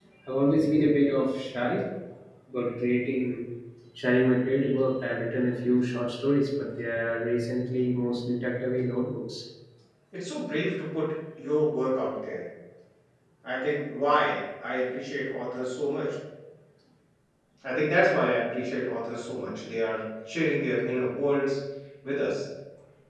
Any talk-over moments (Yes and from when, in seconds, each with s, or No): No